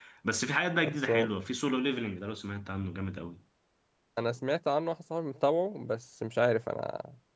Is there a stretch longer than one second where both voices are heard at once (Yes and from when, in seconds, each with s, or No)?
No